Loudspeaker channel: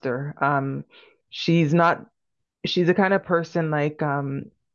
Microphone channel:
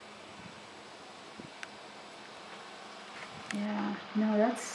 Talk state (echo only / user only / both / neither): user only